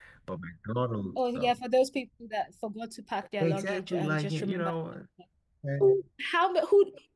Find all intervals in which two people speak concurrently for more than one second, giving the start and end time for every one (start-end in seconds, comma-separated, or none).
3.4-4.7